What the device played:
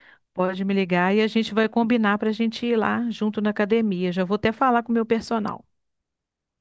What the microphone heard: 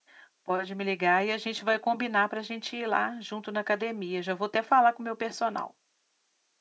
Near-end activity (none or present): none